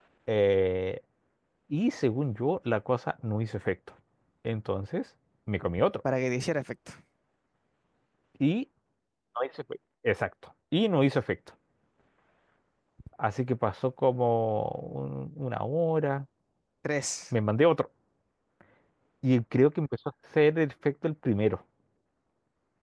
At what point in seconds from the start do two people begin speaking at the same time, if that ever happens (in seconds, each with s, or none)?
none